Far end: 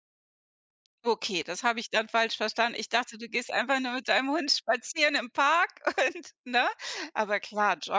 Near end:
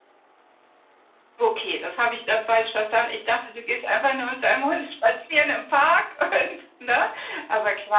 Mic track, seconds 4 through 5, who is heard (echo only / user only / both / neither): echo only